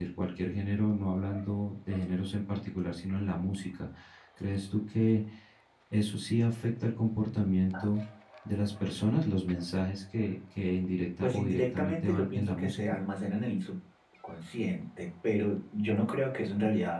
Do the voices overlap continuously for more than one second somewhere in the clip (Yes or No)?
Yes